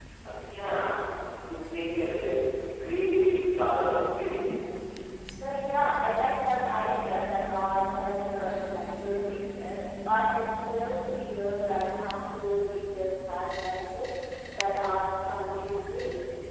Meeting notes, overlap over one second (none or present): none